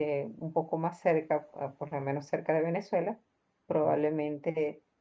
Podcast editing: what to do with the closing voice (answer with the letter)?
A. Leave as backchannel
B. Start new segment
A